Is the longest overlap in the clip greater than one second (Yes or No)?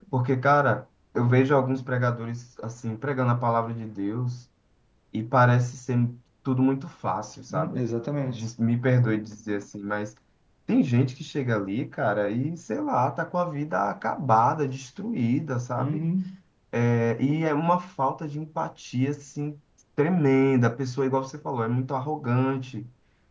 No